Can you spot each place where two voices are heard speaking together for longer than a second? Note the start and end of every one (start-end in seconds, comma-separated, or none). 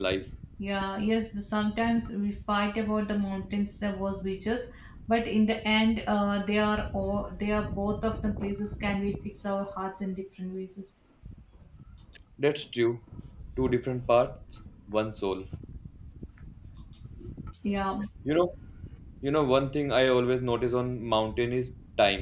none